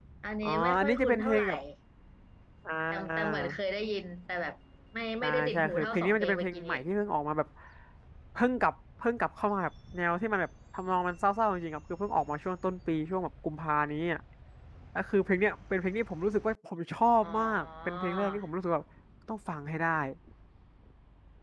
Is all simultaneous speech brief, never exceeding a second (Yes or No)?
No